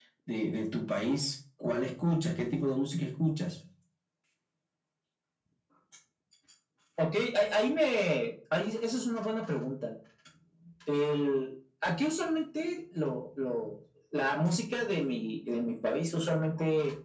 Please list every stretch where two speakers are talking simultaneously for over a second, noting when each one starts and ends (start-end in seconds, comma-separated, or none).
none